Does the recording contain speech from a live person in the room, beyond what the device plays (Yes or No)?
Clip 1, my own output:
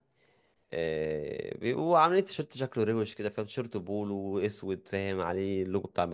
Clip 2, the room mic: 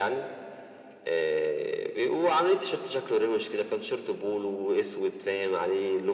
No